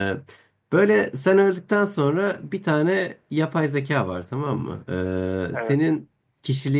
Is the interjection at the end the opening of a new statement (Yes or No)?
No